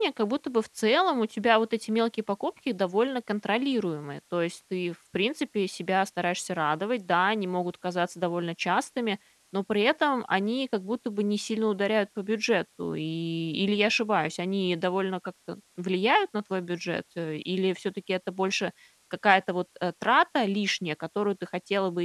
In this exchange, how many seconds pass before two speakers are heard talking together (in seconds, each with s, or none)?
none